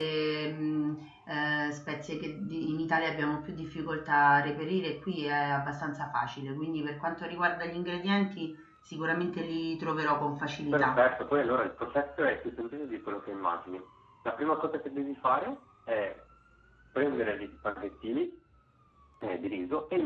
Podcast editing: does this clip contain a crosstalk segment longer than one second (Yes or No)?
No